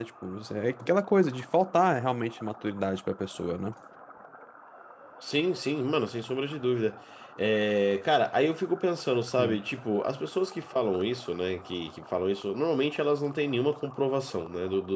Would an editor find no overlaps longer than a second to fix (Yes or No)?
Yes